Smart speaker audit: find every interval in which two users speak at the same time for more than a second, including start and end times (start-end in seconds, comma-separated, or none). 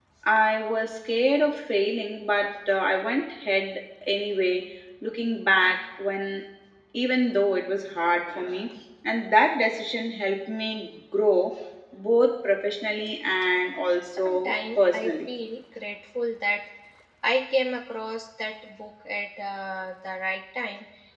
14.0-15.3